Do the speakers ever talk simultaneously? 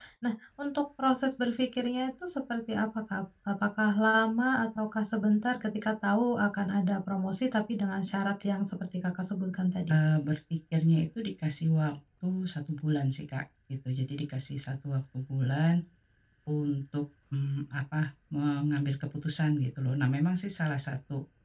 No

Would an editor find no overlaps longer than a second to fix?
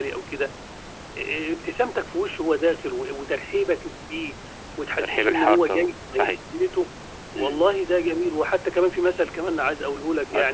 No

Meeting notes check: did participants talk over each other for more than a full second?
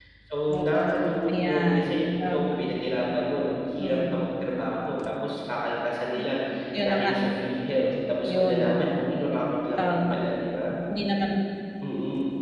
Yes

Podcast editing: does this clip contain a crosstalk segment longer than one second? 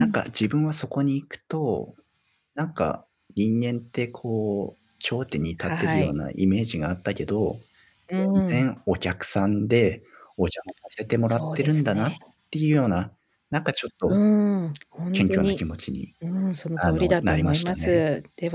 Yes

